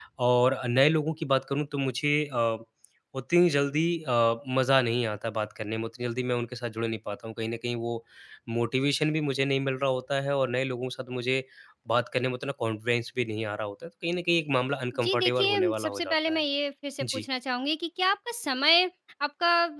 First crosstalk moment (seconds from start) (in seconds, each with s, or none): 14.9 s